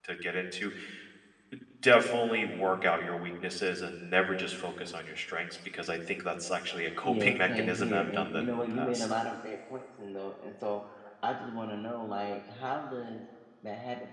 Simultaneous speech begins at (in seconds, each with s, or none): 7.0 s